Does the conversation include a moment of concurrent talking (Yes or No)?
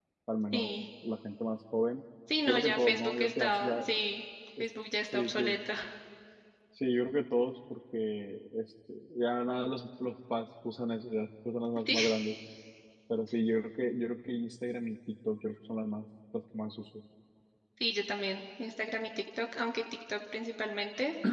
Yes